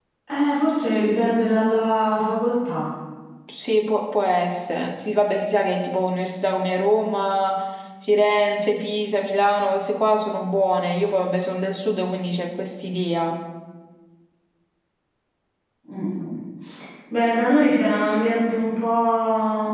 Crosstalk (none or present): none